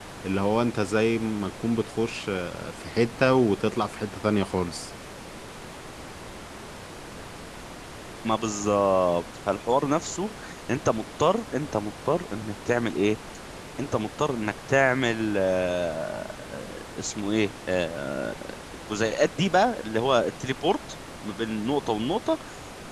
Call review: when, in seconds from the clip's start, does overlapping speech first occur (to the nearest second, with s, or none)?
none